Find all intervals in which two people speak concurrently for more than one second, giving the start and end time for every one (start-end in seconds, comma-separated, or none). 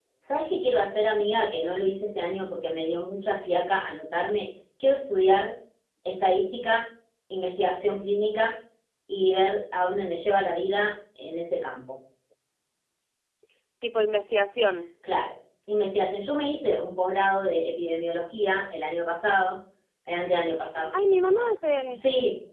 none